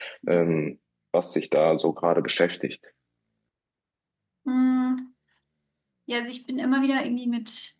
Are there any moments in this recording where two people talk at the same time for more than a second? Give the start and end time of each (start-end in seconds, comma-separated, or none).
none